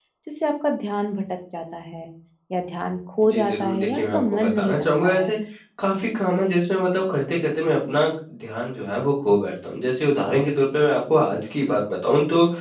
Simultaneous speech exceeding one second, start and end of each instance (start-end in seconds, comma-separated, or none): 3.2-5.4